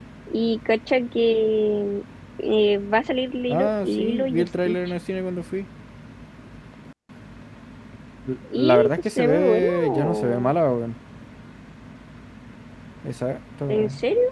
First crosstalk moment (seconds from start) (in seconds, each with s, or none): 3.5 s